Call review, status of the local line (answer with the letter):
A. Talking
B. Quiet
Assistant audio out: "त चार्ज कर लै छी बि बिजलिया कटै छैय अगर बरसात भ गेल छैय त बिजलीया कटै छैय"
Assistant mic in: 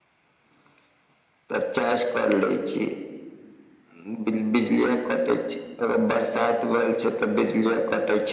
B